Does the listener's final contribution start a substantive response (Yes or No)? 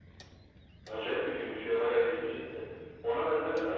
No